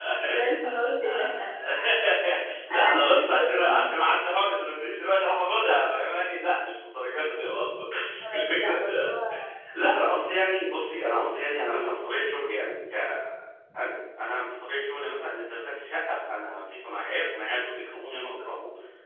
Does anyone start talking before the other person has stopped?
Yes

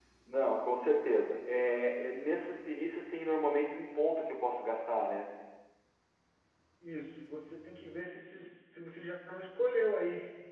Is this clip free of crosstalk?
Yes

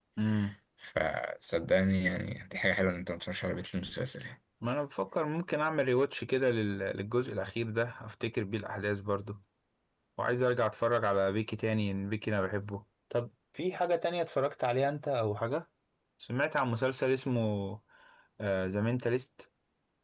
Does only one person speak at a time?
Yes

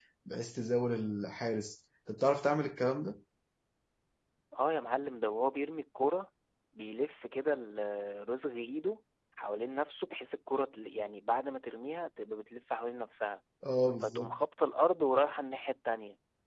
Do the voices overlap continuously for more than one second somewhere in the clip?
No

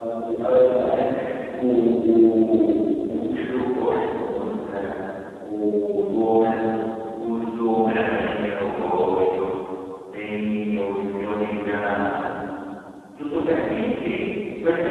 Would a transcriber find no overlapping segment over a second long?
Yes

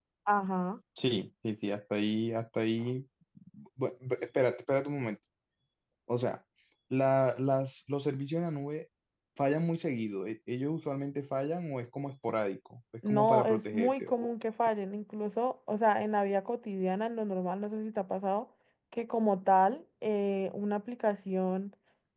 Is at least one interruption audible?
Yes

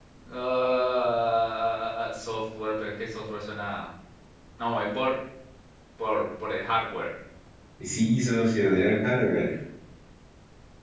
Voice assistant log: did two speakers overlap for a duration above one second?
No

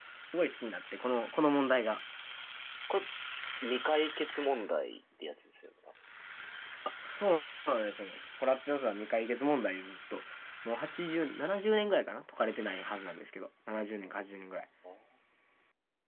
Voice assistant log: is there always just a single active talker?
Yes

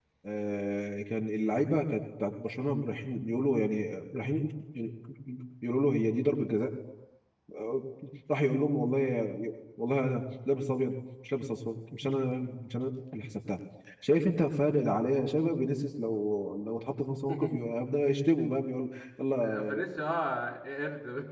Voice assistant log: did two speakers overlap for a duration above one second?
No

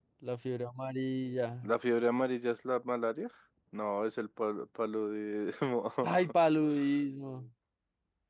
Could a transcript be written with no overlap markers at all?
Yes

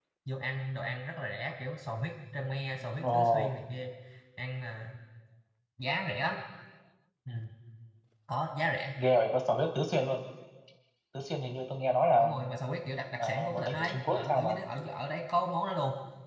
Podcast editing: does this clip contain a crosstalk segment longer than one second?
Yes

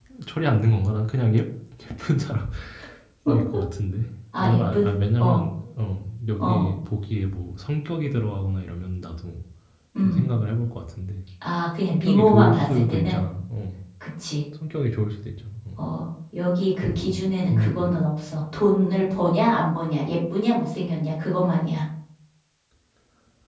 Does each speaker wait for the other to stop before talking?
No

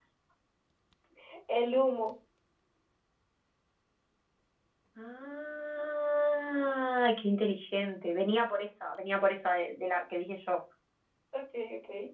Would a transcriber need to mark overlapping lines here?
No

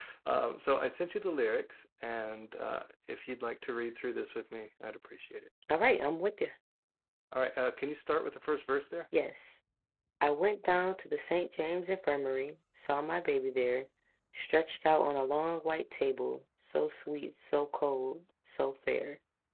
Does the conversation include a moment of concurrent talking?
No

